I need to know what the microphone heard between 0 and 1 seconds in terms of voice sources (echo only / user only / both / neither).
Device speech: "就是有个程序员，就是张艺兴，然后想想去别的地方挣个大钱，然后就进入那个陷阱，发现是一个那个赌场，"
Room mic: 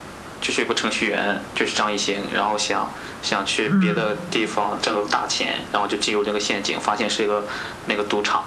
echo only